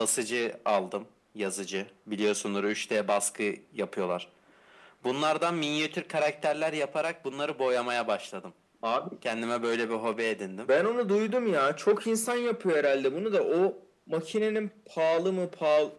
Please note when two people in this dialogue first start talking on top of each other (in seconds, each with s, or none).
none